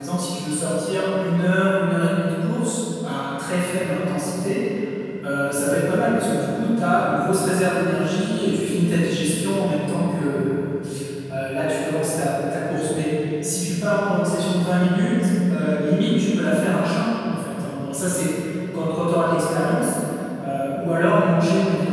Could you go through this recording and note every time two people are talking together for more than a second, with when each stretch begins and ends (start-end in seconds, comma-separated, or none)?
none